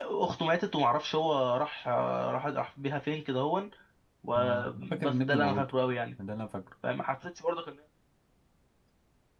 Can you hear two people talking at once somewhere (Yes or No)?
Yes